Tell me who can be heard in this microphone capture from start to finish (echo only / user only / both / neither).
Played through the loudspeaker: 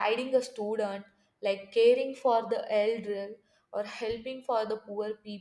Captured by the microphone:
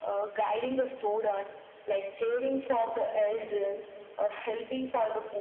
echo only